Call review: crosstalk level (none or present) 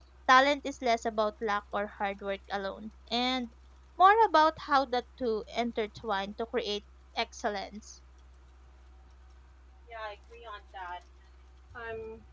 none